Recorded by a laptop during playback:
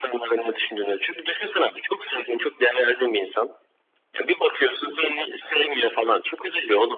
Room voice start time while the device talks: none

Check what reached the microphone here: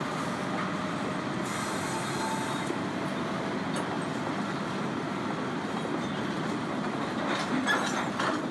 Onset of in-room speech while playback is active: none

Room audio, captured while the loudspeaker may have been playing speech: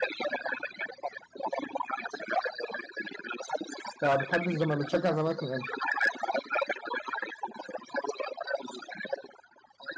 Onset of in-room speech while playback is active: 4 s

